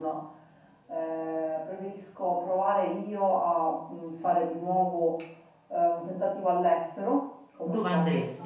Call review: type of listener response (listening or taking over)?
listening